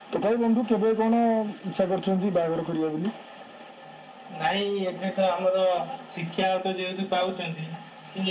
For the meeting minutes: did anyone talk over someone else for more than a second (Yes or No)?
No